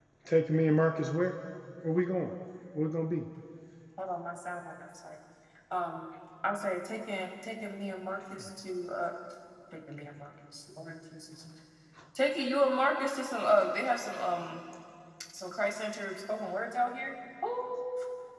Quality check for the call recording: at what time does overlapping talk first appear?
none

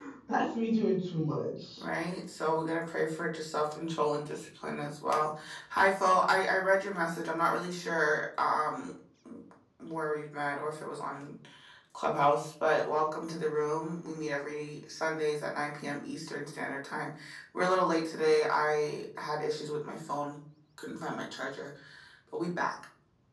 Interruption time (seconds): none

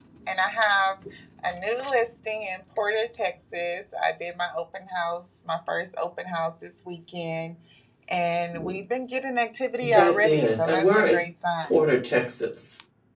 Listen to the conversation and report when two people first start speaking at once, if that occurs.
9.8 s

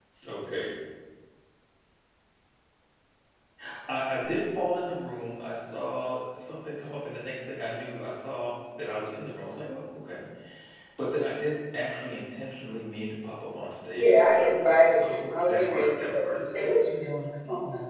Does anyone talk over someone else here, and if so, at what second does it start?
13.9 s

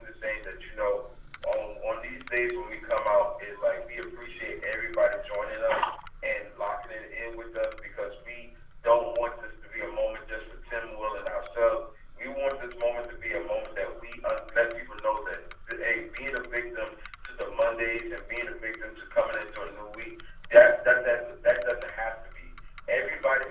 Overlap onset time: none

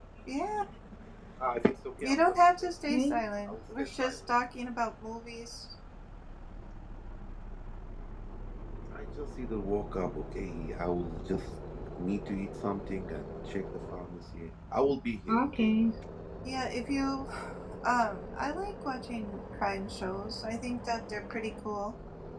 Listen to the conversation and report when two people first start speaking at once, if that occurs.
2.0 s

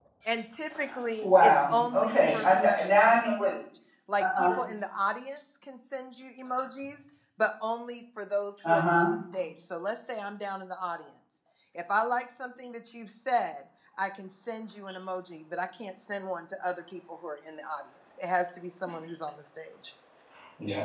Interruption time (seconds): 1.2 s

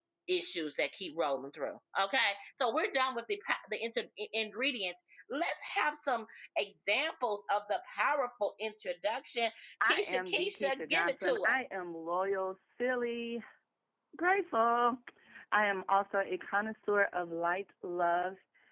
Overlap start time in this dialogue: 9.9 s

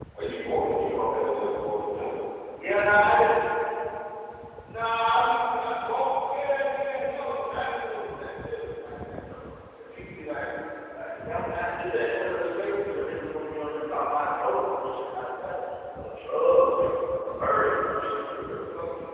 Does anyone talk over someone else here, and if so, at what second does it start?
none

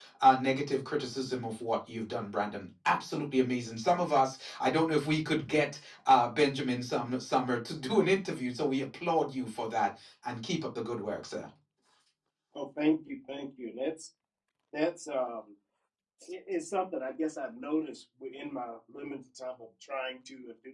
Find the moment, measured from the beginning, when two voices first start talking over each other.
none

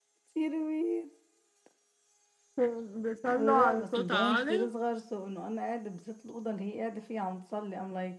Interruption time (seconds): 3.3 s

